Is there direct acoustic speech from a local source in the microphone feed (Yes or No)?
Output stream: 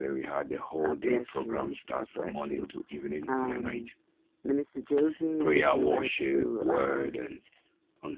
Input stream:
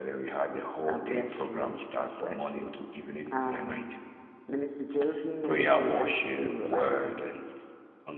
No